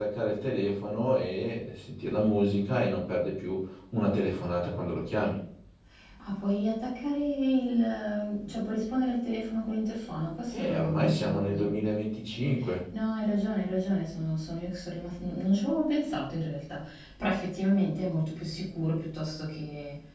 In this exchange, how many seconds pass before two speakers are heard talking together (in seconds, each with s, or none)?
10.5 s